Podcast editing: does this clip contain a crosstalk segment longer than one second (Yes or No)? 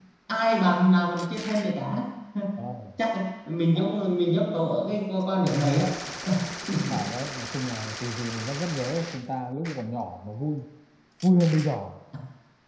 No